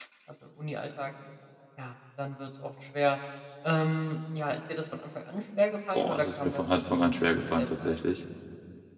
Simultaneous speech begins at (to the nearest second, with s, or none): 6 s